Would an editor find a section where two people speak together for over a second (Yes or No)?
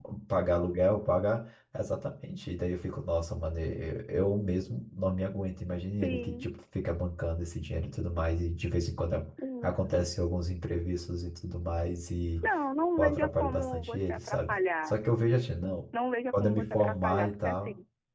Yes